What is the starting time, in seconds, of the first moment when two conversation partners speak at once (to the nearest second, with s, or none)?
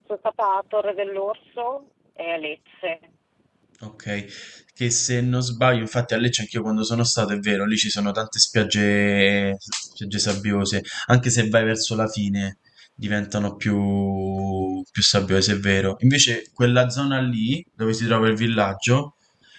none